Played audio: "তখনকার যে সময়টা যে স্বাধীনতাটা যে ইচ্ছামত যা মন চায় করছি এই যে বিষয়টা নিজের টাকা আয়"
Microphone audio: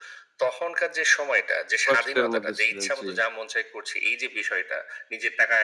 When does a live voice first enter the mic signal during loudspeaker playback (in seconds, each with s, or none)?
1.9 s